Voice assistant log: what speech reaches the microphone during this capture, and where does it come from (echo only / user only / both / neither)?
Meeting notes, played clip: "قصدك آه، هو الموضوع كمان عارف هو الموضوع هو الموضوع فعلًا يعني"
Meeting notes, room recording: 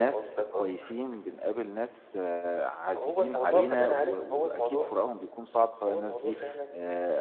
both